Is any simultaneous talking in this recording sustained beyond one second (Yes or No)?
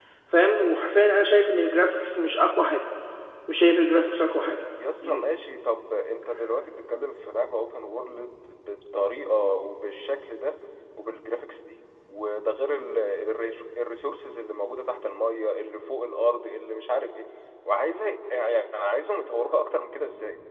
No